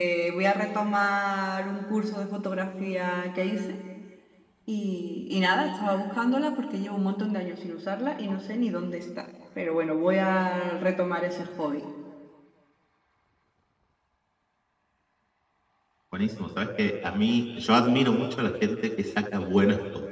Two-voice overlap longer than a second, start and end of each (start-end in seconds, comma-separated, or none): none